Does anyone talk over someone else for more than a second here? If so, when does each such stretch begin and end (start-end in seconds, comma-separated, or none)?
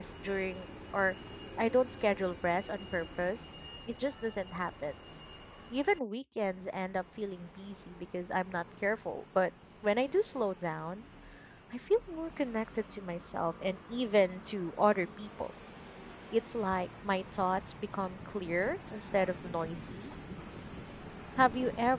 none